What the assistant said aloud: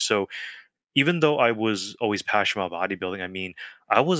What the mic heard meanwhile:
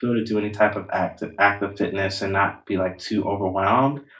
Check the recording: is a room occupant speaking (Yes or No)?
Yes